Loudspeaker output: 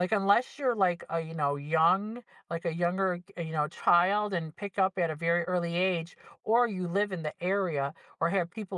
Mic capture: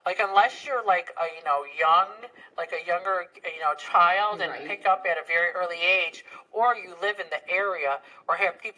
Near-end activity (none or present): present